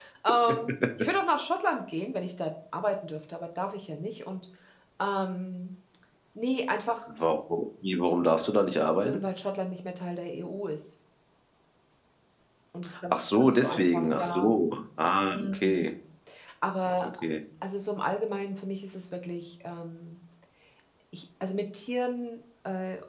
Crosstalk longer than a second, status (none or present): present